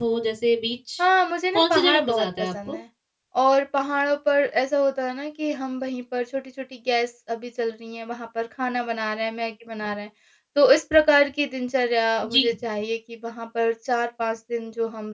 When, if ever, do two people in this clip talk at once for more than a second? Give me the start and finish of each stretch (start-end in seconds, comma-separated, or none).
1.5-2.8